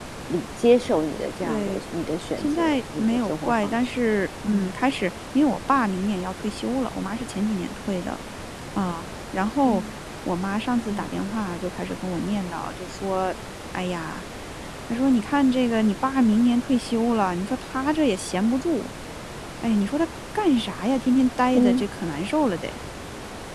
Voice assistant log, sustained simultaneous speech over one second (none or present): present